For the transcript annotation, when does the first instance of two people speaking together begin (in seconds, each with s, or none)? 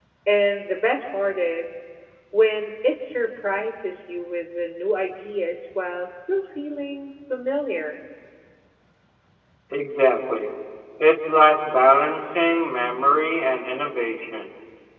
none